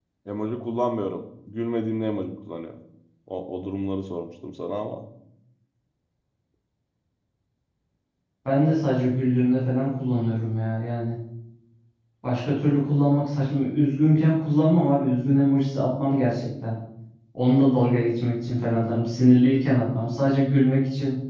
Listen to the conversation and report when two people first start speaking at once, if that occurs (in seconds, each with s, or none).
none